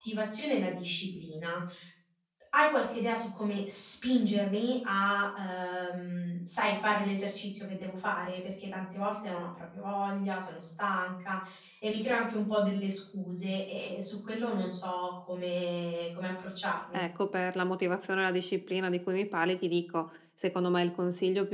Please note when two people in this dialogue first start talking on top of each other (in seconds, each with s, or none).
none